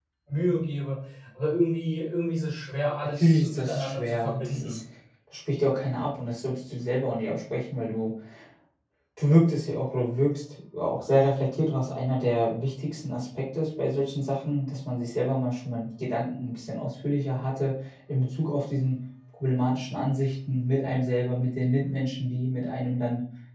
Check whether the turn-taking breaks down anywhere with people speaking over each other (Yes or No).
Yes